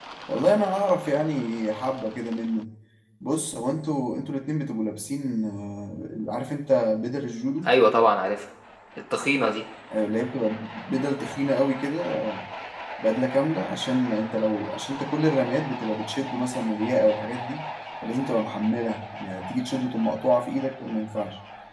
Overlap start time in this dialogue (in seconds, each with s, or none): none